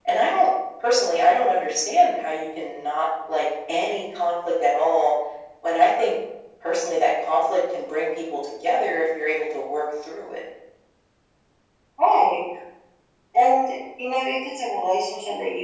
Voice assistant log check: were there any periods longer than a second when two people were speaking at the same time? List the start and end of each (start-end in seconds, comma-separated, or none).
none